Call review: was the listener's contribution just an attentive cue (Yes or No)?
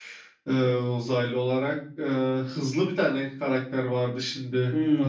No